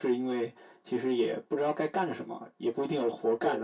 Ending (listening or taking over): listening